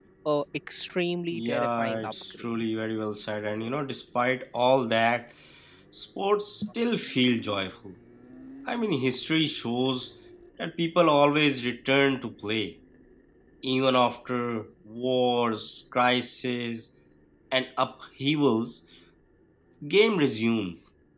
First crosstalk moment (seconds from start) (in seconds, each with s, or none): 1.3 s